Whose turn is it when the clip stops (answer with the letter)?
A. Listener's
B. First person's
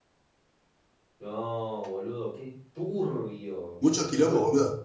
A